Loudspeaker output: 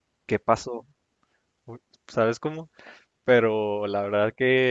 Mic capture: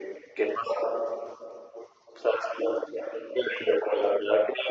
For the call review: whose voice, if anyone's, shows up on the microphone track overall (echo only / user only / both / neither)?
echo only